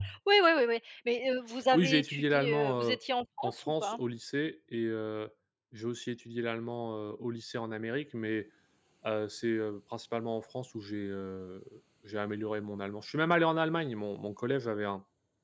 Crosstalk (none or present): present